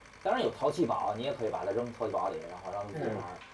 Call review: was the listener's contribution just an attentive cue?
No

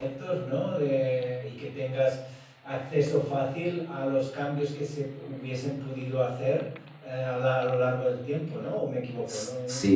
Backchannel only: No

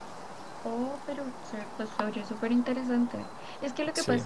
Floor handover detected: No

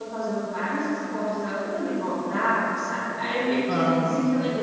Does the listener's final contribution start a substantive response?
No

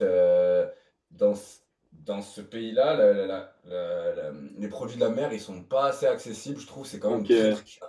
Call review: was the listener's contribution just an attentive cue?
Yes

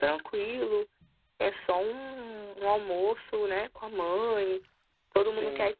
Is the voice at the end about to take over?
No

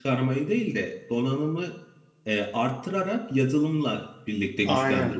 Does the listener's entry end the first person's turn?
Yes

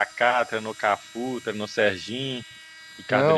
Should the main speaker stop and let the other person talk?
Yes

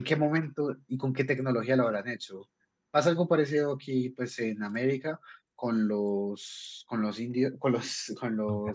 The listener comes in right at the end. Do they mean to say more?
No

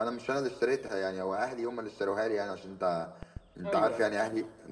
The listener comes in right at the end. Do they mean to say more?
No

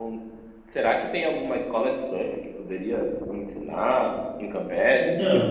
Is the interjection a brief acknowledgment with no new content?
No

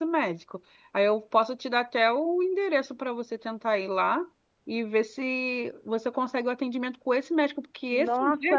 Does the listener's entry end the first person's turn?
Yes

